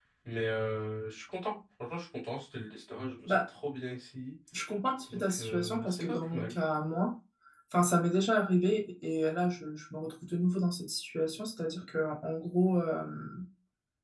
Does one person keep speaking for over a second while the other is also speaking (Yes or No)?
Yes